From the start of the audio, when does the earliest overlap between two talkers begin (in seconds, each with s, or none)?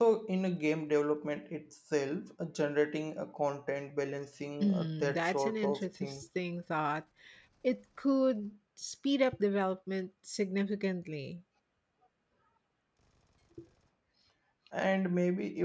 4.6 s